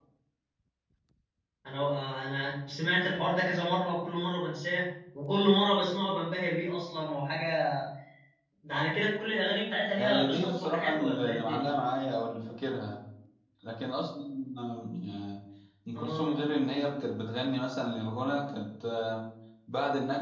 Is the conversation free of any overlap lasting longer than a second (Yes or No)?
No